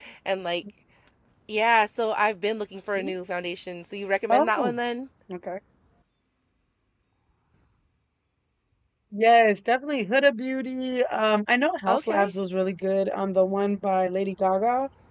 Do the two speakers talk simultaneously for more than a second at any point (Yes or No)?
No